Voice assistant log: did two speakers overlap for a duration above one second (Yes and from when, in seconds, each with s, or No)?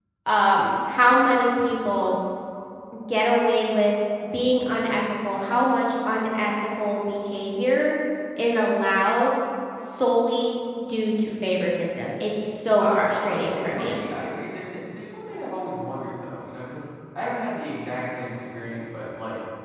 Yes, from 12.8 s